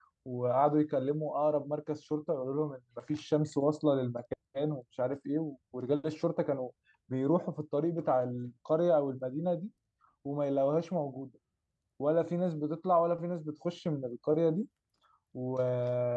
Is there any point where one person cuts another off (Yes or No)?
No